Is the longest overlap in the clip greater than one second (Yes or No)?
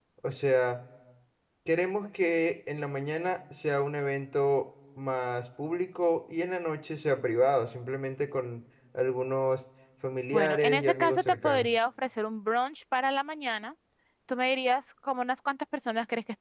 Yes